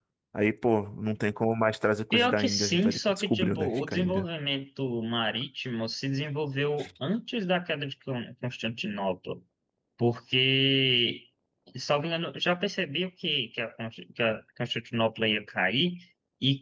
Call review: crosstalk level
present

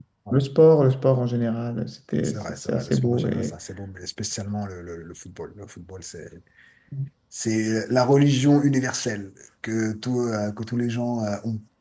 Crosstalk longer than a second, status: present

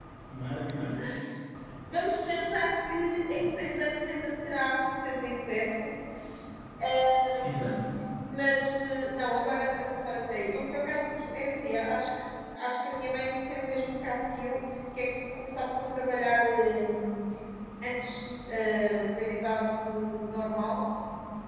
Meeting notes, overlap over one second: none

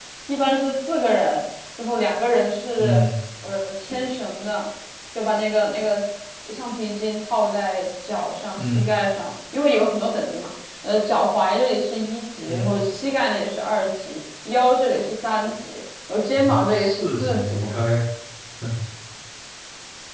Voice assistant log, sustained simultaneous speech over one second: present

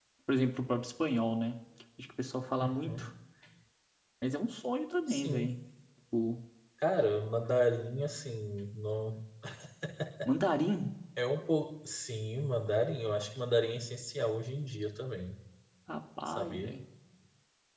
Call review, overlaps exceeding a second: none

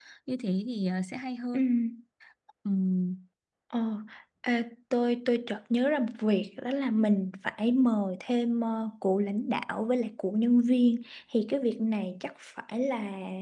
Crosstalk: none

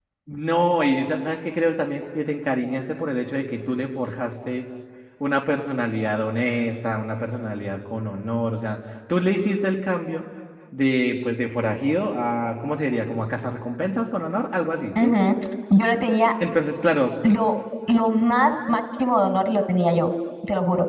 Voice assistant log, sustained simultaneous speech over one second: none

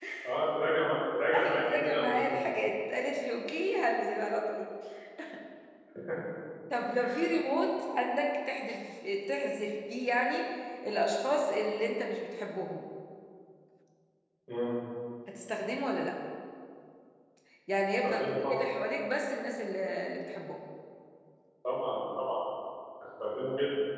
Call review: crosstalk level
present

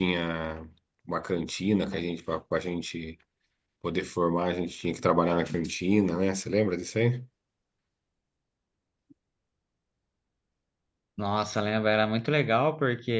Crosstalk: none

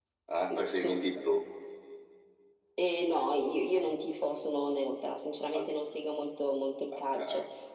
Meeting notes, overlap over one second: none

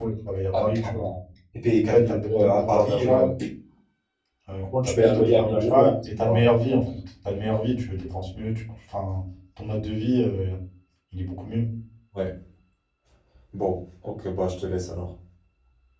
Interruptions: present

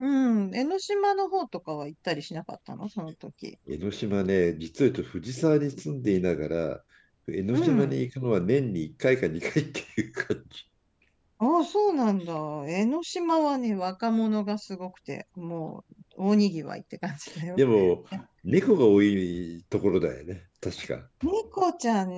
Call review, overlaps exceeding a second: none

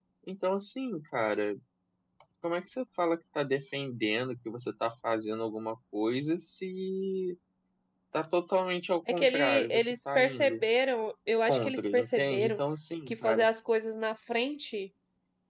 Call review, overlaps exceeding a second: present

